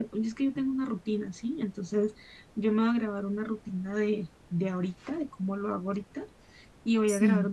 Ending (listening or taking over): listening